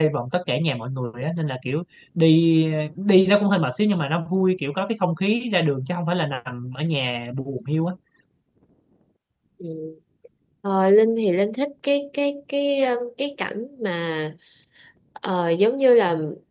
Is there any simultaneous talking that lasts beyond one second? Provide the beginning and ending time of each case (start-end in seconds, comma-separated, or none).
none